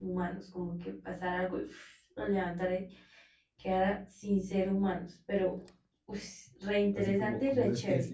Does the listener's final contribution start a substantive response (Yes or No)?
Yes